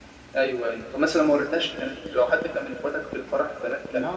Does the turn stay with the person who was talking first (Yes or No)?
No